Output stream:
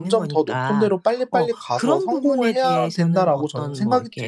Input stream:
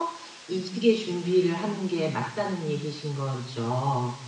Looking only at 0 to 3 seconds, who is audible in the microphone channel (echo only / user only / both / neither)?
user only